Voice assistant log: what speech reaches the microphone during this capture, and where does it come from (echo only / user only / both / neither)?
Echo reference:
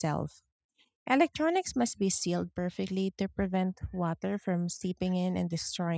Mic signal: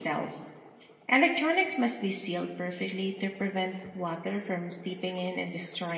echo only